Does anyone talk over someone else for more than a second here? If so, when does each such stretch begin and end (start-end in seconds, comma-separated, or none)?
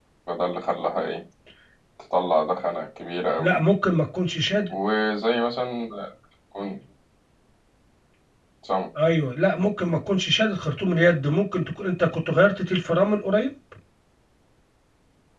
none